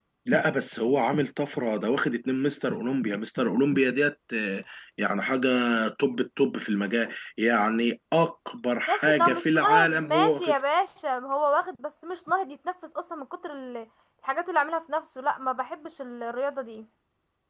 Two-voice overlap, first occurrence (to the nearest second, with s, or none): 9 s